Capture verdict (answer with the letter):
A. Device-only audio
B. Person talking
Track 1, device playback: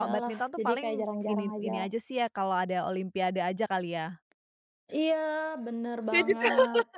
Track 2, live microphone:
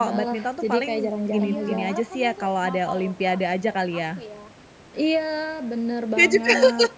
B